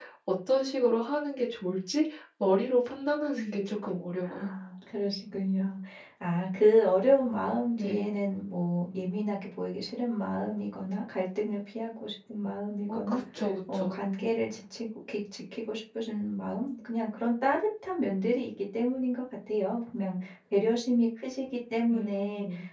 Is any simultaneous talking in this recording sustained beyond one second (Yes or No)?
No